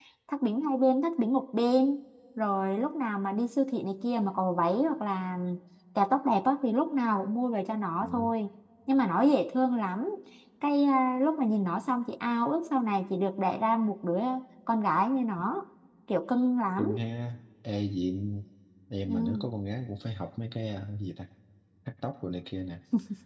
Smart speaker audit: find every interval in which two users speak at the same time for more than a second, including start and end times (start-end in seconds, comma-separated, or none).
none